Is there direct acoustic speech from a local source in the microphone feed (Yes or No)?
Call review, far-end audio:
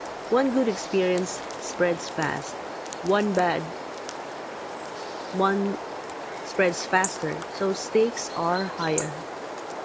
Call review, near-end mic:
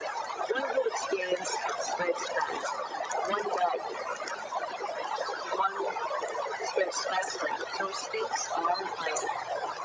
No